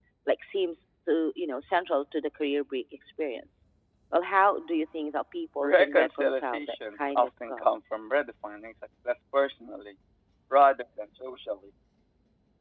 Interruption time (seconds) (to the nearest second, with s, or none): 6 s